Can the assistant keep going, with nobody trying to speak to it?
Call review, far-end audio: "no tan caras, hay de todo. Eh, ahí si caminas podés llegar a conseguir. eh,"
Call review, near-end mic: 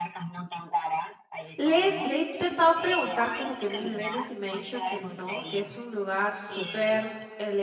No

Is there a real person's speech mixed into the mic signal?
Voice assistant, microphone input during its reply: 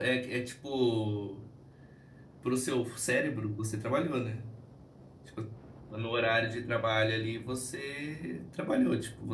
Yes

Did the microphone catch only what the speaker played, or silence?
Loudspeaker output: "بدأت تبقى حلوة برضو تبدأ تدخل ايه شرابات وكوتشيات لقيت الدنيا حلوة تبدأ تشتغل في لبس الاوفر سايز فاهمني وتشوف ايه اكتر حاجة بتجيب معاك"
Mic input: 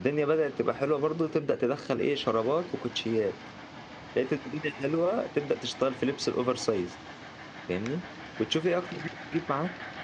Yes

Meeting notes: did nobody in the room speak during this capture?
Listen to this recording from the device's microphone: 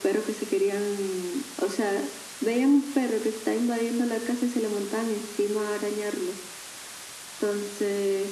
Yes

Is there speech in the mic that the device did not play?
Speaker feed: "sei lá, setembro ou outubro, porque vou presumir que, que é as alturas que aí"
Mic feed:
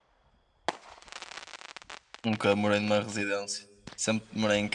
Yes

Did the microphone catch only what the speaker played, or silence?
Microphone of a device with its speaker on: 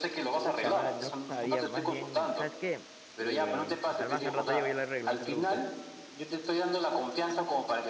No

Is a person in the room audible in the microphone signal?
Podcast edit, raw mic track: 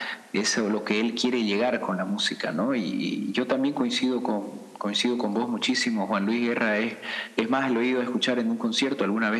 No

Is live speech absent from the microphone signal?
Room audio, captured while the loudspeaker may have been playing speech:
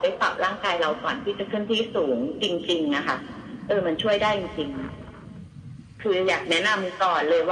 Yes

